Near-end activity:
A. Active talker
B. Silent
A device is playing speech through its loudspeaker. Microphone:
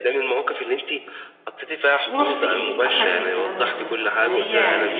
A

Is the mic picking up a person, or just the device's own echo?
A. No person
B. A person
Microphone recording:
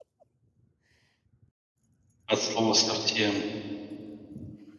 B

